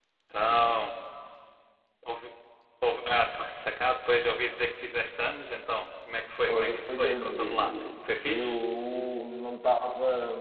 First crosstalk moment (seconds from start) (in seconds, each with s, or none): 6.5 s